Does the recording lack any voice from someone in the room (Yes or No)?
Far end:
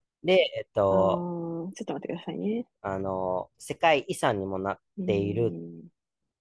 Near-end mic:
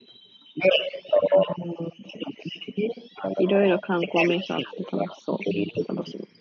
No